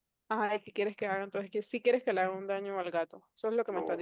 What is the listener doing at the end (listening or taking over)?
taking over